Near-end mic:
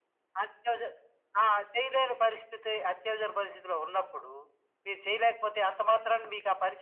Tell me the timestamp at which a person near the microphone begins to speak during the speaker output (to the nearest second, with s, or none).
none